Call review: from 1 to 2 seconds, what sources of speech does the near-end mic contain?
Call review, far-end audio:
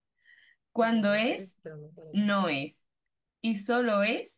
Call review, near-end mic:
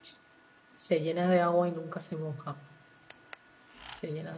user only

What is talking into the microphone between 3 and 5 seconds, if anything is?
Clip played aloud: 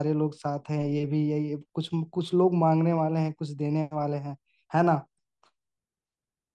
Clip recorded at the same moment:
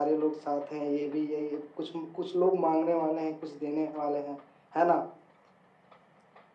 echo only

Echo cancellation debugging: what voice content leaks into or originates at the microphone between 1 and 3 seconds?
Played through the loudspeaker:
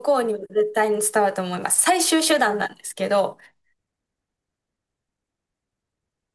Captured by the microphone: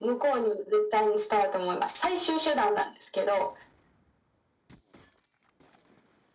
echo only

